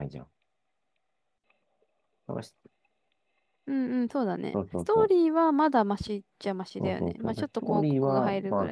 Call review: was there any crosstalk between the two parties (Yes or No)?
Yes